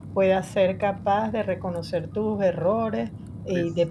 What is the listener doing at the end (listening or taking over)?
listening